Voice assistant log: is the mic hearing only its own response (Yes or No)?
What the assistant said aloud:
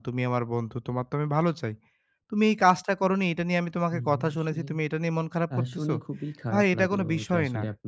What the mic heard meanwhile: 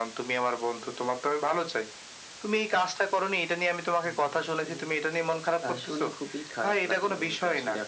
Yes